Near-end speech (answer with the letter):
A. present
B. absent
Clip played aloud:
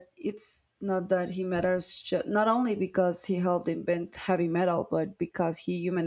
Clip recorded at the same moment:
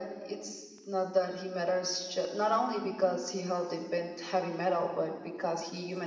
B